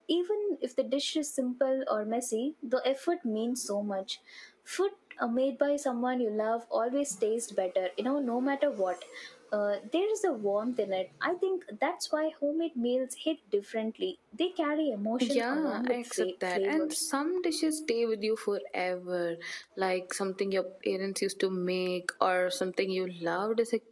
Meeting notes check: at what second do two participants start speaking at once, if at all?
15.2 s

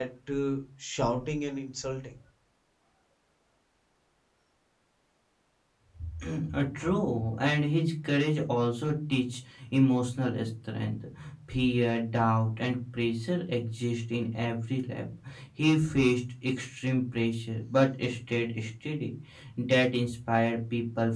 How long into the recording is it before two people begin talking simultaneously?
none

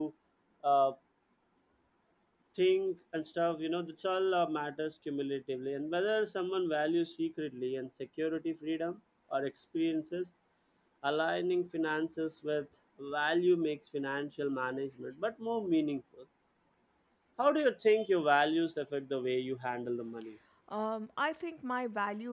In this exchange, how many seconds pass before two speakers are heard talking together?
none

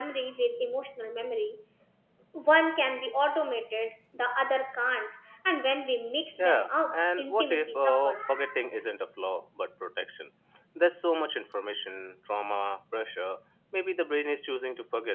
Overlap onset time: 6.4 s

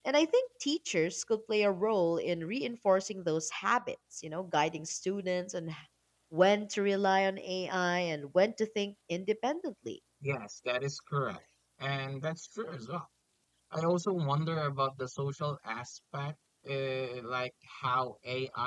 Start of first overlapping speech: none

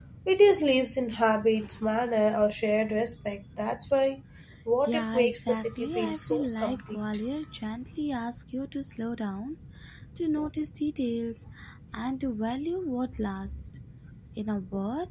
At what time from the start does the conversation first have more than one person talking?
4.9 s

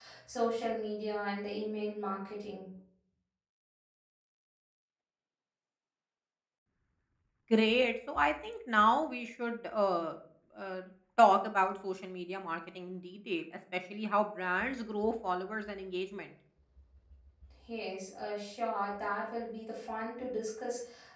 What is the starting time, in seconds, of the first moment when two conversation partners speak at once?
none

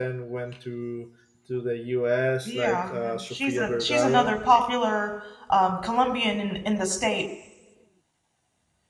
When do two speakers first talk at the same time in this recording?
2.5 s

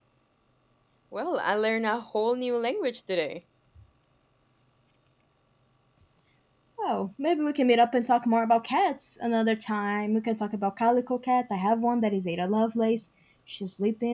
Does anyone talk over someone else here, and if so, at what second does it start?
none

